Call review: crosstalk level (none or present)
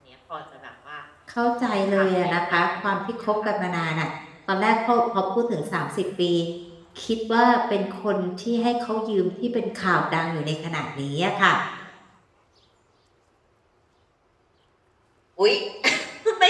present